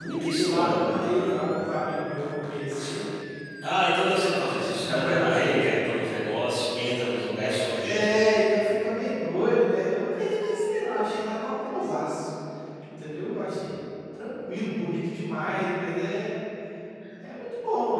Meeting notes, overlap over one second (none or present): present